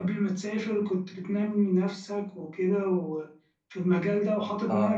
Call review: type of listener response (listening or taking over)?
listening